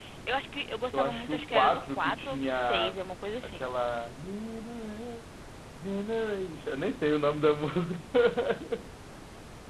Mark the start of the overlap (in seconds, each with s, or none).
0.9 s